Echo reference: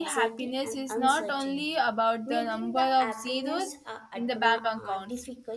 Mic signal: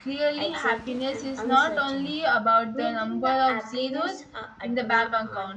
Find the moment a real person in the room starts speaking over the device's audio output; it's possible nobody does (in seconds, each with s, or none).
none